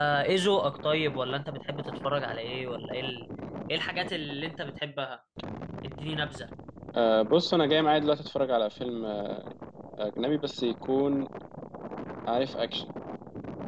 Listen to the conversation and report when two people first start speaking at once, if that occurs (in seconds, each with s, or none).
none